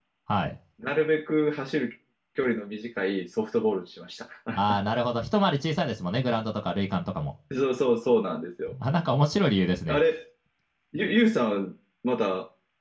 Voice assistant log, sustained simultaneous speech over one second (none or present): none